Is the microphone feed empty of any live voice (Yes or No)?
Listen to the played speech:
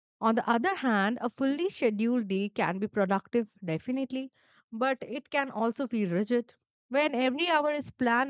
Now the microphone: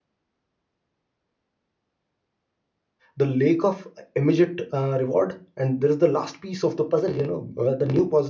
No